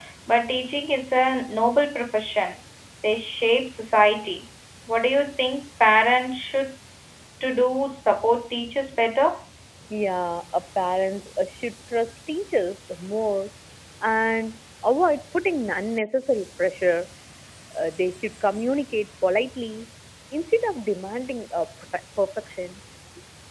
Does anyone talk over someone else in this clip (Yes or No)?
No